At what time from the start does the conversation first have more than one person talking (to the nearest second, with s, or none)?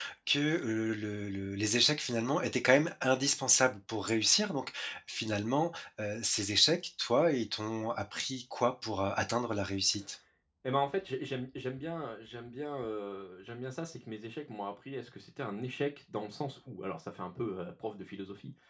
none